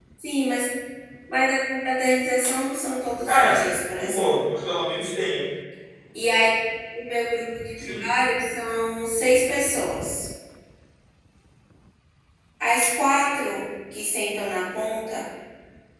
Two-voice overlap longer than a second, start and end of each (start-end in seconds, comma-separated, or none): none